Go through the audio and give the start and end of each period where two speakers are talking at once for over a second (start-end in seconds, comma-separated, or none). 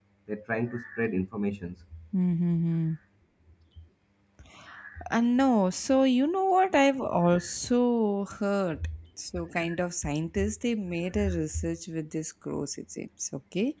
none